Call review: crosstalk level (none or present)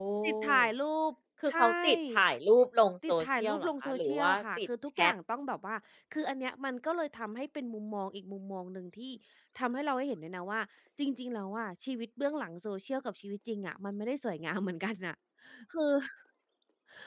present